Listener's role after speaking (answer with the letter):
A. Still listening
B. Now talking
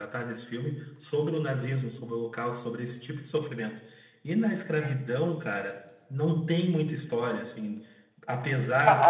B